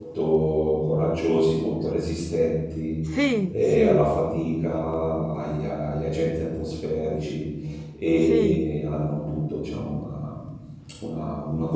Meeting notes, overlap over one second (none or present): none